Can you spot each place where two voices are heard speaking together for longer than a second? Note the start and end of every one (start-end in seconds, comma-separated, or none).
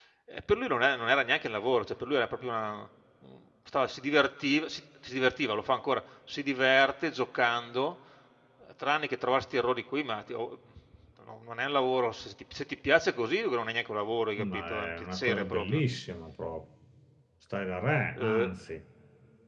14.4-15.8